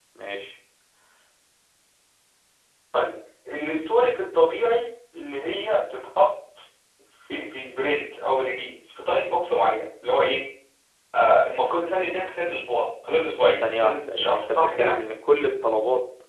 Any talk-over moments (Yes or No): Yes